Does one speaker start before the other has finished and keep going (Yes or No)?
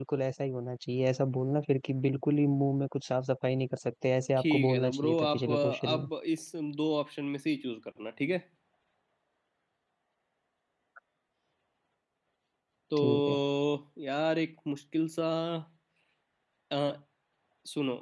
Yes